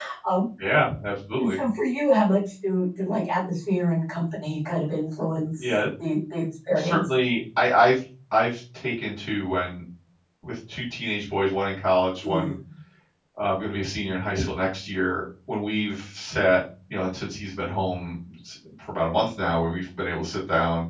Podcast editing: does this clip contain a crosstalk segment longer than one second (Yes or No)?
No